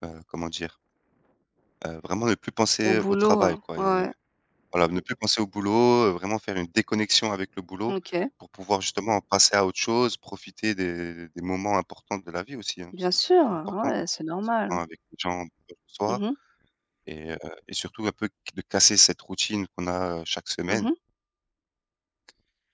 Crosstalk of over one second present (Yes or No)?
Yes